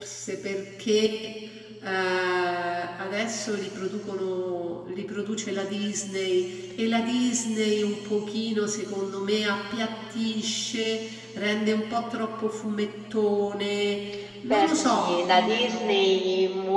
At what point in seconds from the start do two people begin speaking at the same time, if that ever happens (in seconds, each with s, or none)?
14.5 s